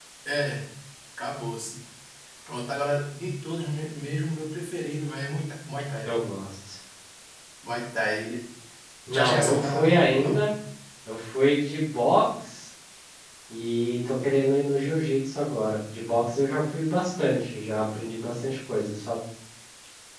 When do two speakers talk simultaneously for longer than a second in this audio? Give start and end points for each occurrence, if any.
9.1-10.5

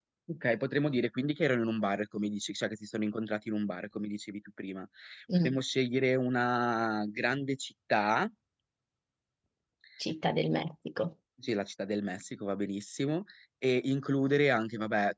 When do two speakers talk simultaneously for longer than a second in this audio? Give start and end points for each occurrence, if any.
none

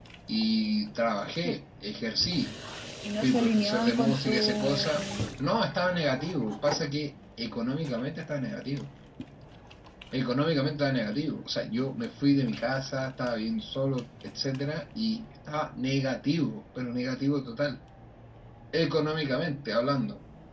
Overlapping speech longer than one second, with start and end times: 3.2-5.0

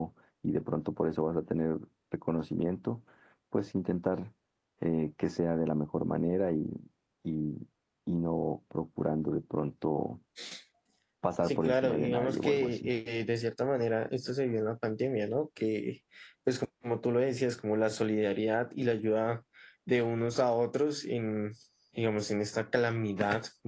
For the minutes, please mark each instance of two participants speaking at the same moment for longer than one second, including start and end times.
11.4-12.9

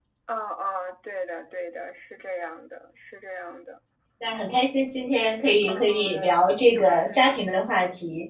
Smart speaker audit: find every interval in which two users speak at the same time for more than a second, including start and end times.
5.7-7.2

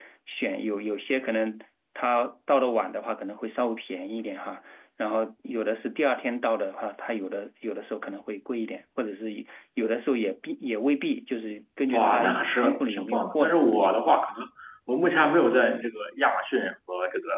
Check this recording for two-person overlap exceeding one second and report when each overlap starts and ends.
11.9-14.2

